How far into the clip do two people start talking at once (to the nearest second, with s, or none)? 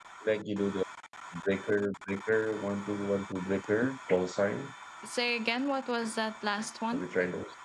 none